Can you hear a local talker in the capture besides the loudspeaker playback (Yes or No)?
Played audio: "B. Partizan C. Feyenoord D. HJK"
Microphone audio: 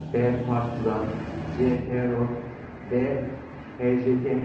No